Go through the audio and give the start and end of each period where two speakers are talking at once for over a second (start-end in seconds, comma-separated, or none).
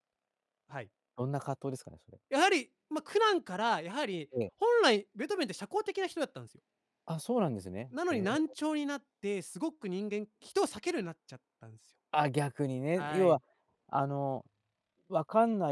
none